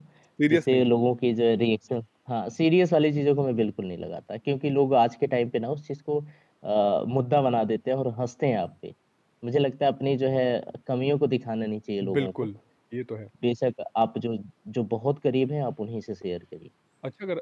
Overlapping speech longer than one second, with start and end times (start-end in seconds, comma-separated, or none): none